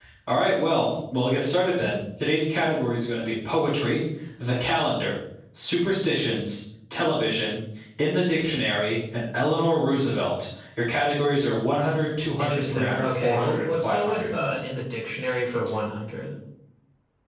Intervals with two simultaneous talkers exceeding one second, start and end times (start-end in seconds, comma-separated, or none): 12.4-14.4